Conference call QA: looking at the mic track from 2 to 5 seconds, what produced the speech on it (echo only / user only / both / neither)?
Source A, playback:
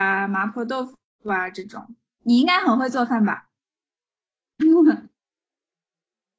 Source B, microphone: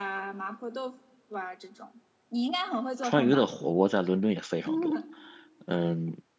both